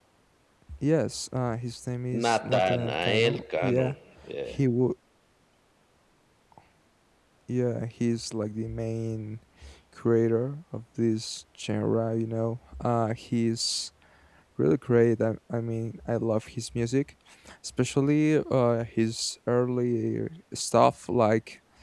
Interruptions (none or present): present